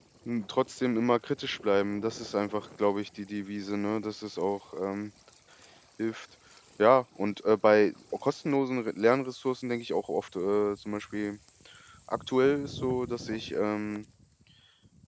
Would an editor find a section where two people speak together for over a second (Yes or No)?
No